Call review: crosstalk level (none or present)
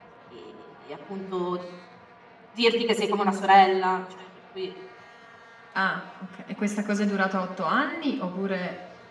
none